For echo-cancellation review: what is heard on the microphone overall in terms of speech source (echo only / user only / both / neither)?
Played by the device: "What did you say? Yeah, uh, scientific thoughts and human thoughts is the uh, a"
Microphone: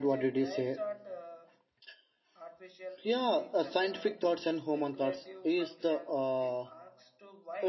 both